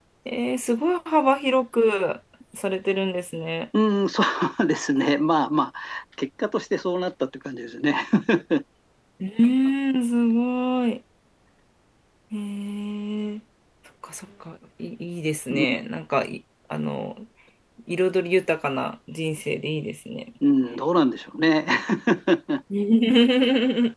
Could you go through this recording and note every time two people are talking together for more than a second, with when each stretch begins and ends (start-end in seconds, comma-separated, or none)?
none